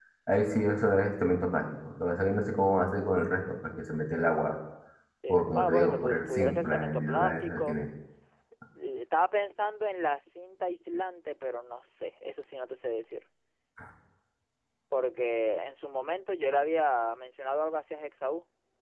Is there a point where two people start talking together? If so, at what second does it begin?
5.3 s

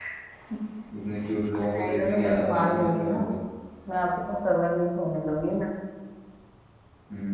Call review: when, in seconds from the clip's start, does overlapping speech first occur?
1.7 s

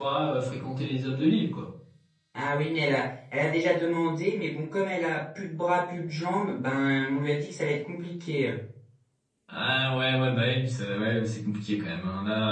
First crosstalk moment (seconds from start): none

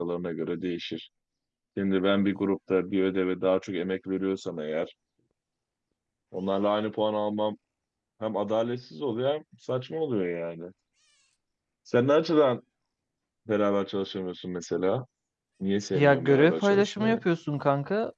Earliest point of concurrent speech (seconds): 15.9 s

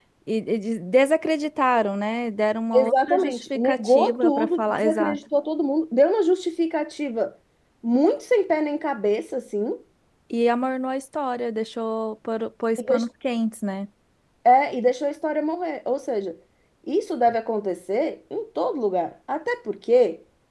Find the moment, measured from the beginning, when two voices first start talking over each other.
2.7 s

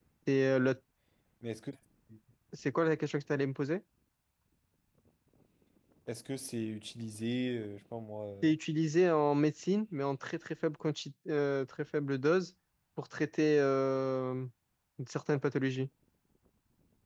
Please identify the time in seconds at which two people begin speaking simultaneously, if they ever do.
none

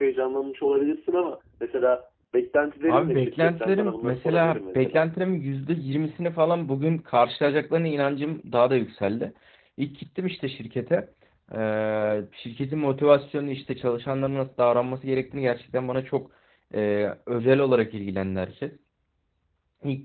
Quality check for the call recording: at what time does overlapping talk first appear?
2.9 s

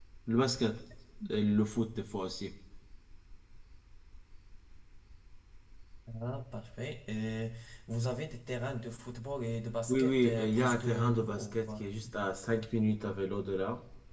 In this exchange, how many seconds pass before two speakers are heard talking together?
9.9 s

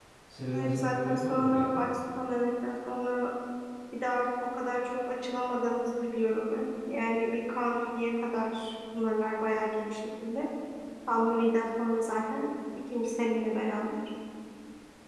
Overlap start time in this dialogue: 0.5 s

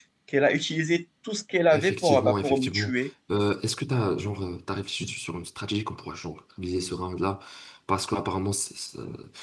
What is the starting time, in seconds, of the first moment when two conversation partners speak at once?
1.7 s

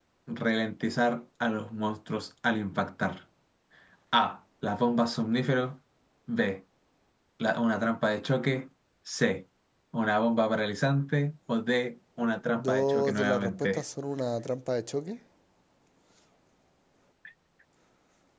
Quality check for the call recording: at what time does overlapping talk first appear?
12.5 s

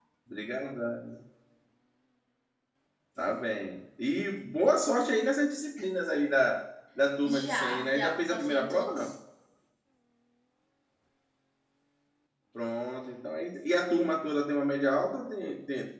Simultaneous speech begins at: 7.2 s

